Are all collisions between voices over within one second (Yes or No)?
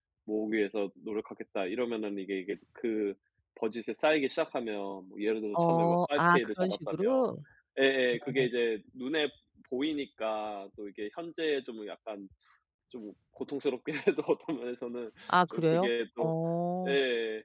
No